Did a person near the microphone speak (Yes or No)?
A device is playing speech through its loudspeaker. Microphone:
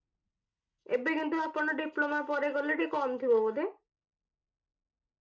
Yes